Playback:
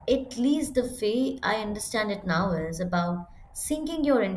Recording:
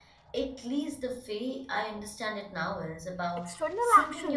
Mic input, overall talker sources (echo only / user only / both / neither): both